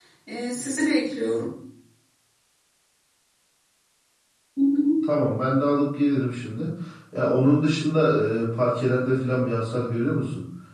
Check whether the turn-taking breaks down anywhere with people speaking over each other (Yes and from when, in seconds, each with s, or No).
No